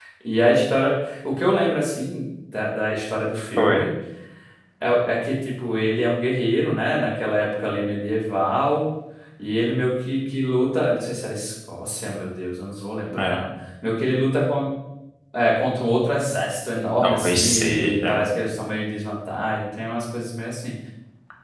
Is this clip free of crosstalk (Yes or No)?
No